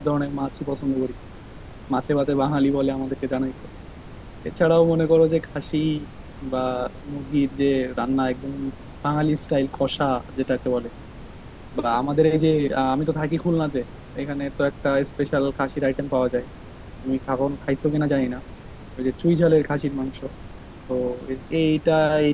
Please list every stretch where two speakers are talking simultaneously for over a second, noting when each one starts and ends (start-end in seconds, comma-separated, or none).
none